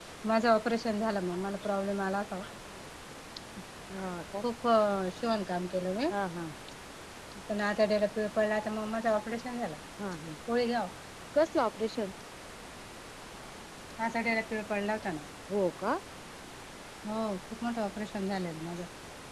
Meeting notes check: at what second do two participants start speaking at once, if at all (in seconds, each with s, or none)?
none